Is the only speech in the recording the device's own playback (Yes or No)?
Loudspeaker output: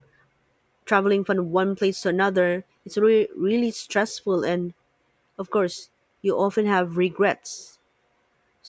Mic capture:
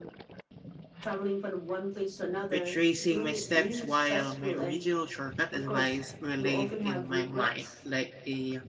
No